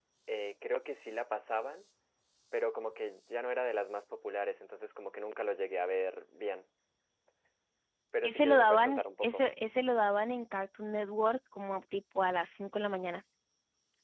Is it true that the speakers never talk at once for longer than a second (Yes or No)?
No